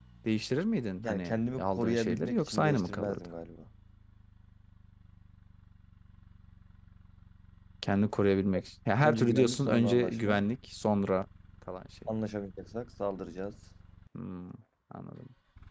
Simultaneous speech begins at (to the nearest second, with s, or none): 1 s